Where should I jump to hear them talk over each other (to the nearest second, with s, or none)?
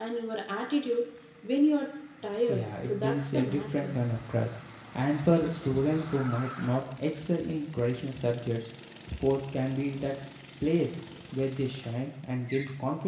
2 s